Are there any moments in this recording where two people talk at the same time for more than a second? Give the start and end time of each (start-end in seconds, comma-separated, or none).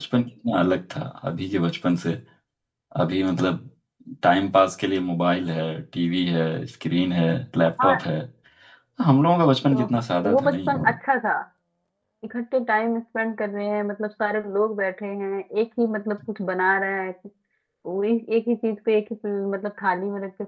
9.7-10.9